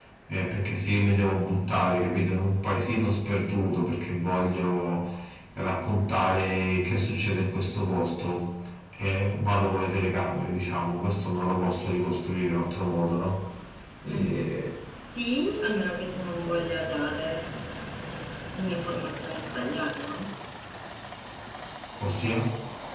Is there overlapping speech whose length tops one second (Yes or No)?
No